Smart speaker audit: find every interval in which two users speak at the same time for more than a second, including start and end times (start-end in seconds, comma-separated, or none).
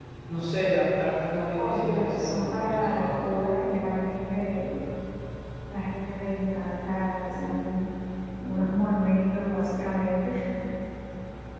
1.6-3.2